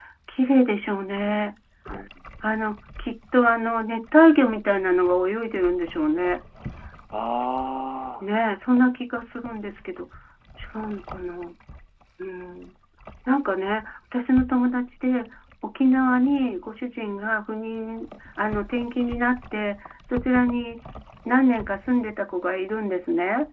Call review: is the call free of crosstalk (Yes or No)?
Yes